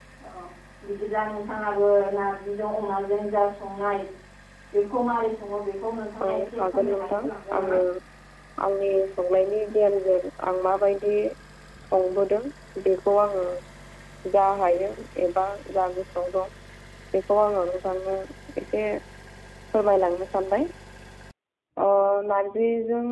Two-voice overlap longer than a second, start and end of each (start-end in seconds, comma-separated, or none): 6.3-7.8